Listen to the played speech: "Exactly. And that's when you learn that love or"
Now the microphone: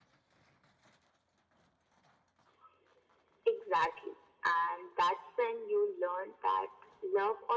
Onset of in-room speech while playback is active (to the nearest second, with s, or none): none